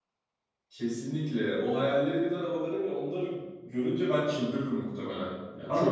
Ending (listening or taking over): taking over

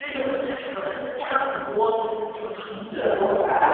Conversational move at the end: taking over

